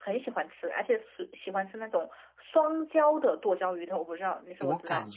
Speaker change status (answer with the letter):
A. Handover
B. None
A